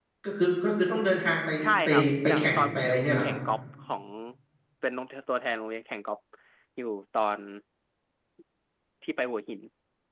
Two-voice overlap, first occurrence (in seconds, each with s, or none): 1.6 s